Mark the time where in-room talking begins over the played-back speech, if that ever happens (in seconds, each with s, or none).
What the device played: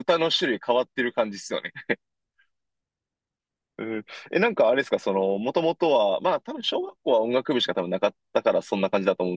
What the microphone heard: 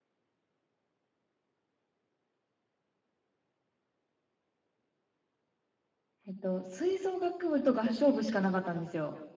6.3 s